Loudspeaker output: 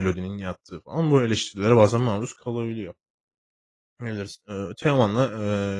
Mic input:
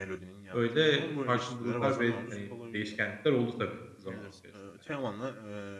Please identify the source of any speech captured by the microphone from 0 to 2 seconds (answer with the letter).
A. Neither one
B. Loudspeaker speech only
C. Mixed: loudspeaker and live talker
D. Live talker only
C